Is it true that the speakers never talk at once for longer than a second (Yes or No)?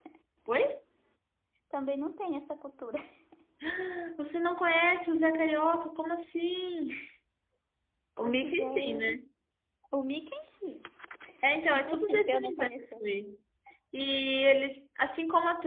No